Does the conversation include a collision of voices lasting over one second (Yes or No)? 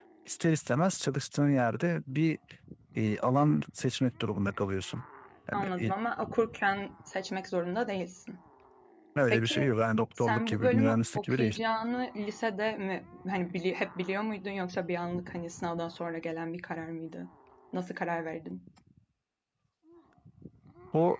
Yes